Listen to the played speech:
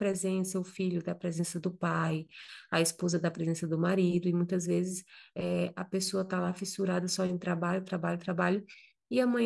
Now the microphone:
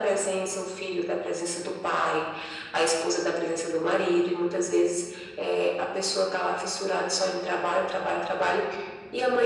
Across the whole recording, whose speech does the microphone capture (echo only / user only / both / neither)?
echo only